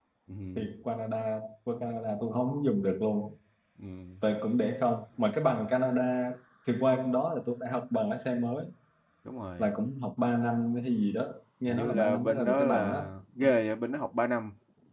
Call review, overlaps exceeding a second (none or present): present